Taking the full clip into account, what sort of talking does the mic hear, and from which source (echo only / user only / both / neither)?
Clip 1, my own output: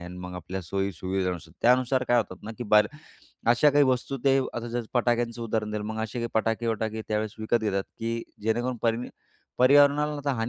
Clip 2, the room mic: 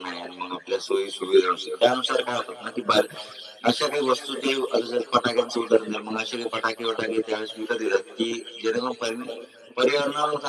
echo only